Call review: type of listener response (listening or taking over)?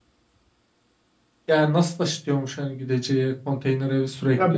taking over